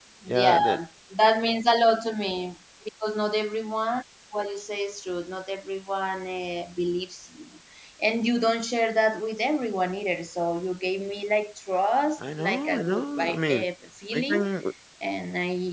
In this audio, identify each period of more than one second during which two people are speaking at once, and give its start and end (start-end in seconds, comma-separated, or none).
12.4-13.6